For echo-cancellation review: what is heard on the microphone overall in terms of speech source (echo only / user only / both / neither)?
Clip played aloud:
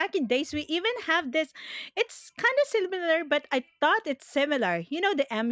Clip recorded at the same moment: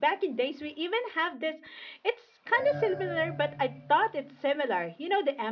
both